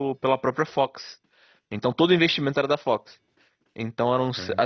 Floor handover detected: No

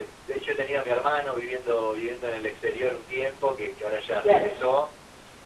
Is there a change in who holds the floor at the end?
No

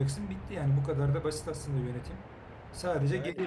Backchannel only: Yes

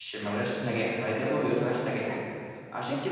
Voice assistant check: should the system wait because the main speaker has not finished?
No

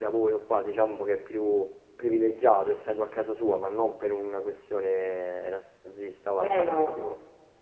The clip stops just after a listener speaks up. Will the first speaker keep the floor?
Yes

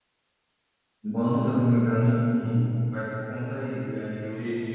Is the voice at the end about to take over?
Yes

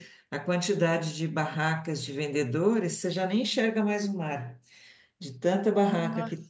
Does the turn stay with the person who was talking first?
Yes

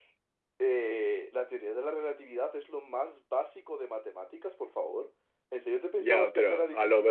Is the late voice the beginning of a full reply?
Yes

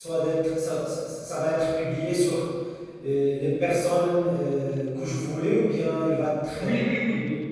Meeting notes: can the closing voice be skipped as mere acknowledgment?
No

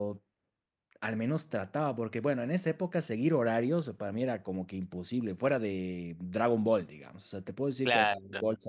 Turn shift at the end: No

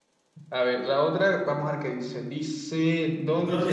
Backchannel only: No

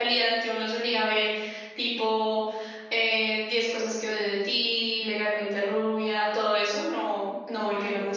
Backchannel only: No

